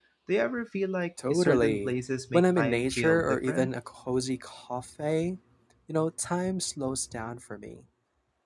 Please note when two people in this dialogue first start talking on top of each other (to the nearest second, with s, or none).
1 s